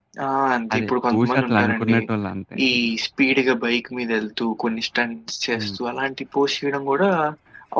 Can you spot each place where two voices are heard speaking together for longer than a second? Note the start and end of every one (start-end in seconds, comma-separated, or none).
0.7-2.0